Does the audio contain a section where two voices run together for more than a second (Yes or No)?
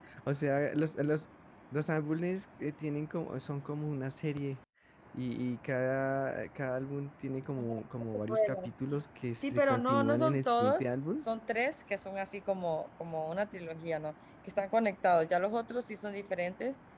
Yes